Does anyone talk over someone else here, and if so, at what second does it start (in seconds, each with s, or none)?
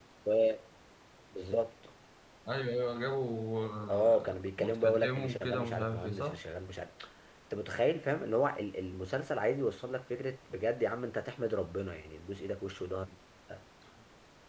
3.9 s